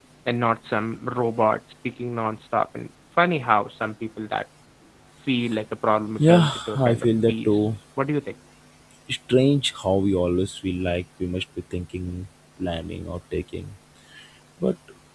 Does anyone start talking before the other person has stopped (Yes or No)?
Yes